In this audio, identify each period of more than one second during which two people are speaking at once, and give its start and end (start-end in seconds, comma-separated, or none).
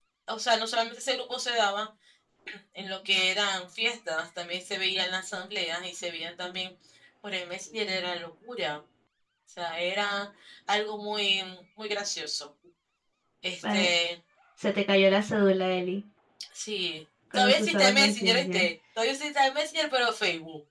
17.3-18.7